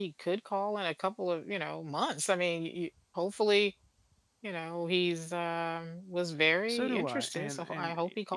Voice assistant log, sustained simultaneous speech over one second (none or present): present